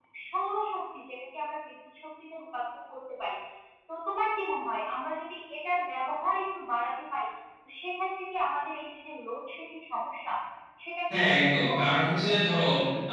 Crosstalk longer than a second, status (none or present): present